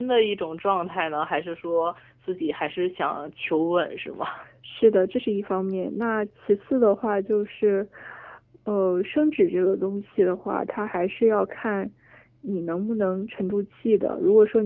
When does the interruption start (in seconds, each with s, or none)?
none